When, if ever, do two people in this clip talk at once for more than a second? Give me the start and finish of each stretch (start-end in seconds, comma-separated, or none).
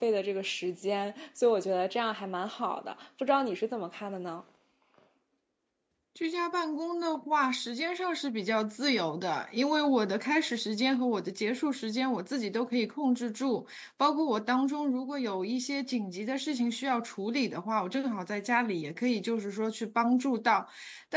none